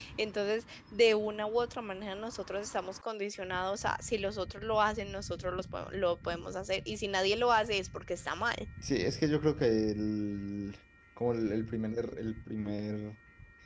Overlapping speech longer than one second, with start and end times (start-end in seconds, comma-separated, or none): none